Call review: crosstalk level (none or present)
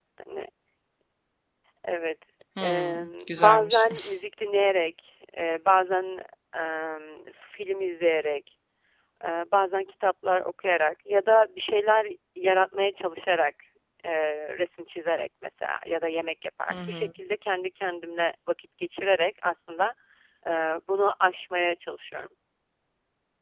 present